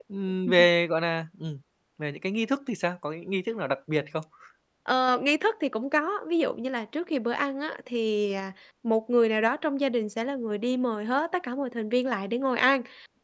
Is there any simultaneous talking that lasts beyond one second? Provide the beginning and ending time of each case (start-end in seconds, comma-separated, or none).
none